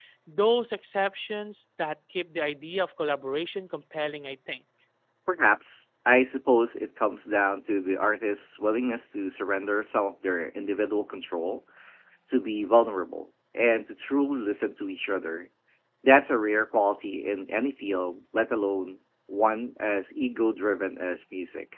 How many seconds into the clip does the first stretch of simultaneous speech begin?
none

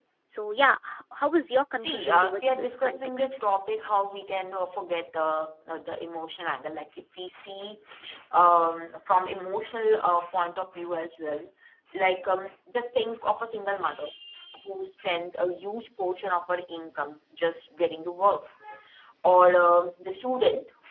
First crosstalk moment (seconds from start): 1.8 s

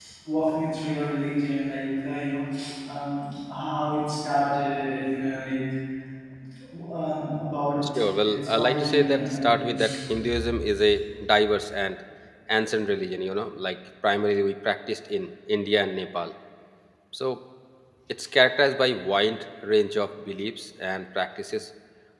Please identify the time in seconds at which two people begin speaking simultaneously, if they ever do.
7.8 s

